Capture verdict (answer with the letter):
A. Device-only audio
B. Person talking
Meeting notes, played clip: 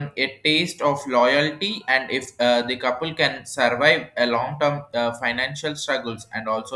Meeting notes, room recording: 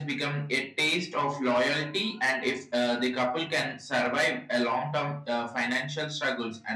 A